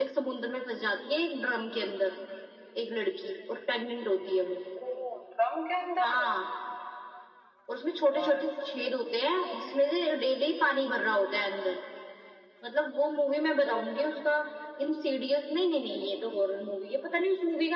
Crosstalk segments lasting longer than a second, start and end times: none

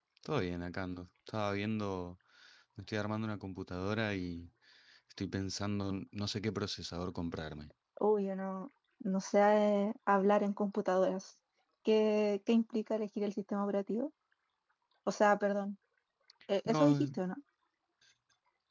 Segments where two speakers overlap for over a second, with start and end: none

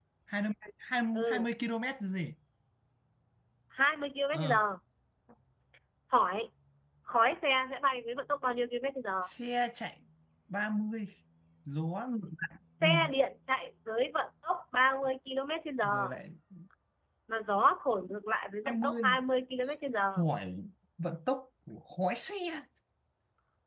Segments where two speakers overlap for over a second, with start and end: none

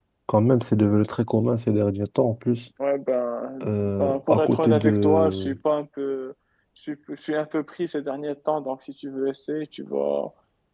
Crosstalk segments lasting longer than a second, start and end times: 3.6-5.5

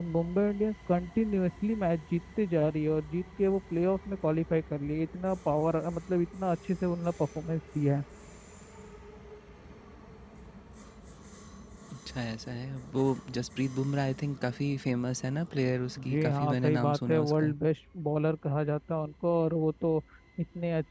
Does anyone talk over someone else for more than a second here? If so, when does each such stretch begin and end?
16.1-17.5

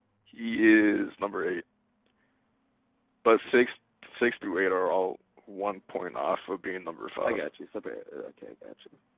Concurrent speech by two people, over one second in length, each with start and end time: none

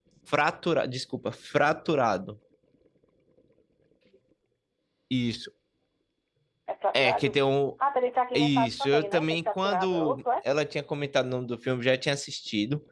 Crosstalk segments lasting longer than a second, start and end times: 8.3-10.2

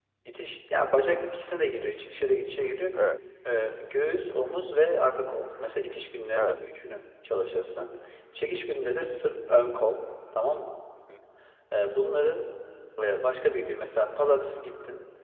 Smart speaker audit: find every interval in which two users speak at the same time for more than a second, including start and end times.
none

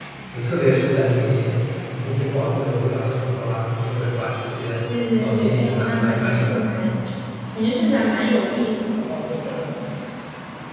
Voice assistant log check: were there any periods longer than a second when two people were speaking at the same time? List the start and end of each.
5.2-6.7

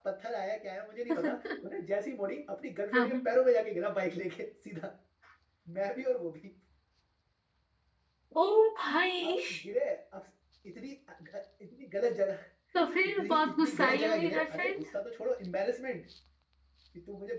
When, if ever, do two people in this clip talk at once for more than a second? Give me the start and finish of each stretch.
13.2-14.8

